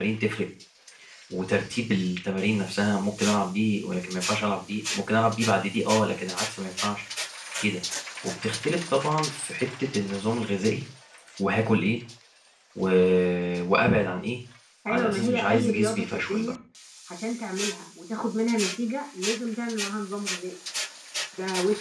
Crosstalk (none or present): present